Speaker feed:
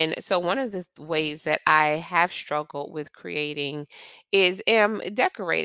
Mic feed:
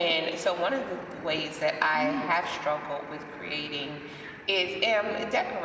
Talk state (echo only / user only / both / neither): both